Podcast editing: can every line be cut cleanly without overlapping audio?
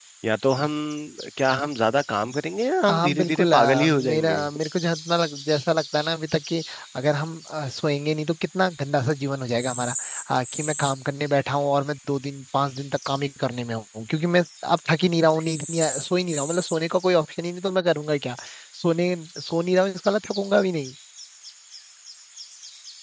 No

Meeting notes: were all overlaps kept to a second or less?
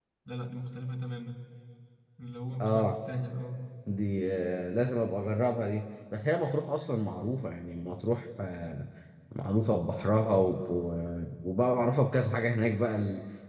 Yes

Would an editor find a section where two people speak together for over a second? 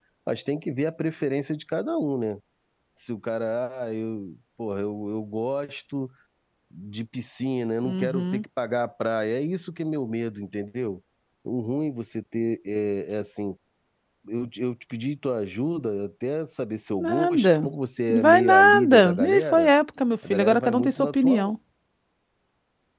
Yes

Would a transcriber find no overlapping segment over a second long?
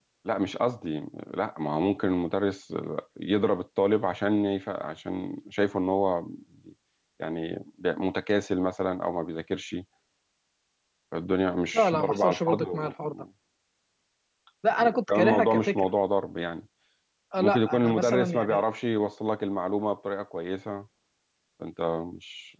No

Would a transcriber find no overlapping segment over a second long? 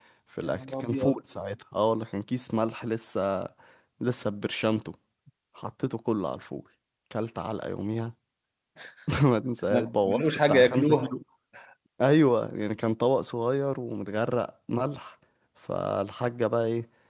No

